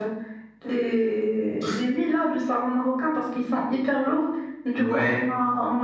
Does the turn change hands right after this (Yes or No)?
No